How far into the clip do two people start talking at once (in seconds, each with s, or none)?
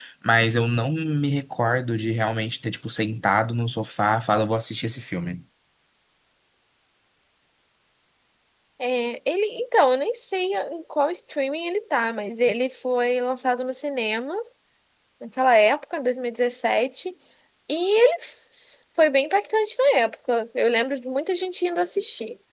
none